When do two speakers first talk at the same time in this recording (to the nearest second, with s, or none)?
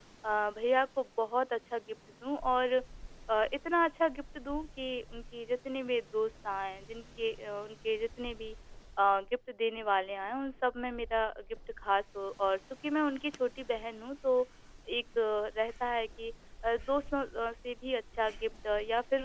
none